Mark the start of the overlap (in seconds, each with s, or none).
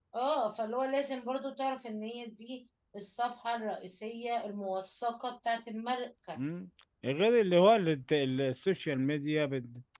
none